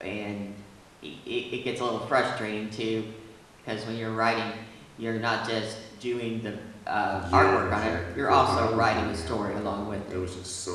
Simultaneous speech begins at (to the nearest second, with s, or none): 7 s